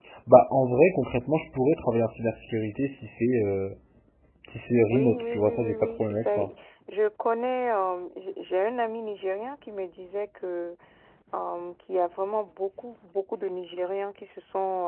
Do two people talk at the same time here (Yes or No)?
Yes